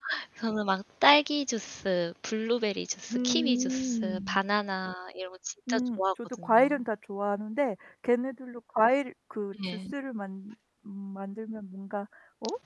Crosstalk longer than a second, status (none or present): present